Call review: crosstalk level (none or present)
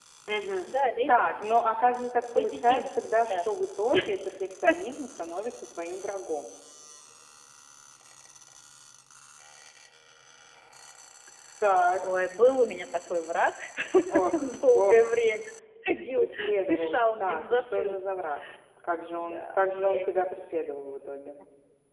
present